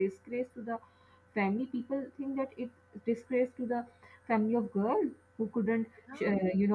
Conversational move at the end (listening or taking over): listening